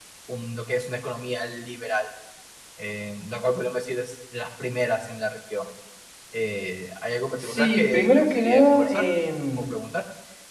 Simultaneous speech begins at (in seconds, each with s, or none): 7.4 s